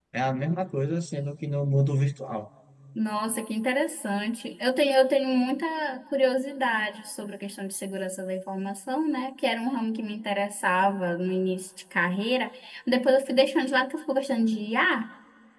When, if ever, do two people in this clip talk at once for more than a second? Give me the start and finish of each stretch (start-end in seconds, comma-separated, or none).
none